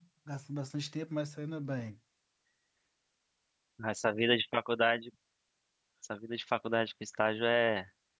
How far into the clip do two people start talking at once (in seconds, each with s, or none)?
none